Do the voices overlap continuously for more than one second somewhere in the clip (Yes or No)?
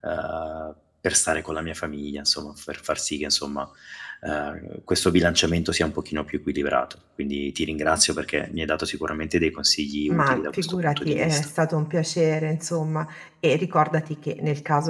Yes